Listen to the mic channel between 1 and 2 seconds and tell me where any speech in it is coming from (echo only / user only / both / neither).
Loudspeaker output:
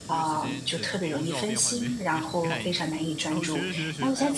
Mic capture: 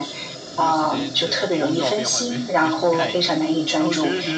both